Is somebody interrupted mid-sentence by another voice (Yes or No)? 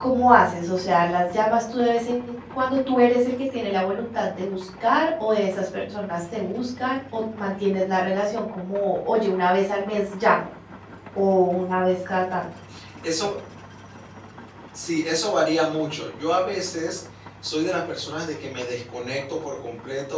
No